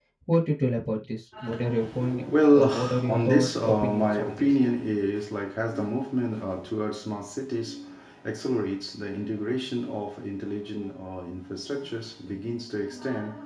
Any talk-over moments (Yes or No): Yes